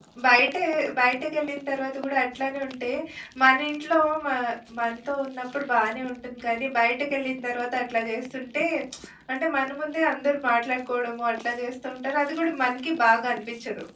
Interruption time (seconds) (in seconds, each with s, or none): none